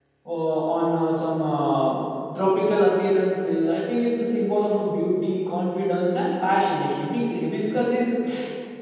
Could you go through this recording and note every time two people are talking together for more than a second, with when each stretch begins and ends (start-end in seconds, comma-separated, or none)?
none